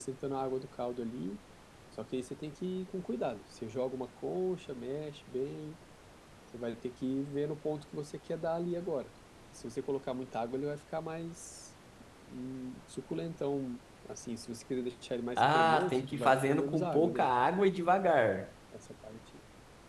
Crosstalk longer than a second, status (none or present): present